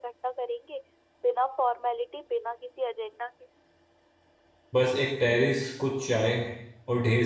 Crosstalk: none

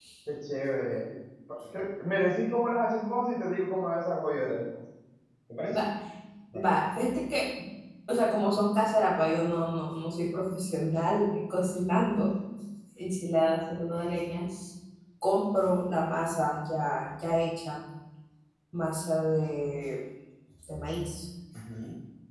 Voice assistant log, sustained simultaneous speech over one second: none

